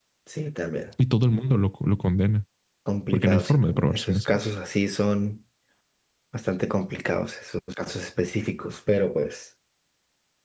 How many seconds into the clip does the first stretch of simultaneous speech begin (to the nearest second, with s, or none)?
3 s